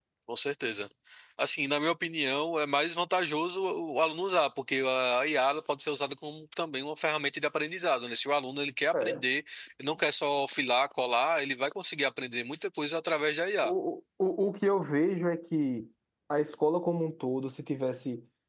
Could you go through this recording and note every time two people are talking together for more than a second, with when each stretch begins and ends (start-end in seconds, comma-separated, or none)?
none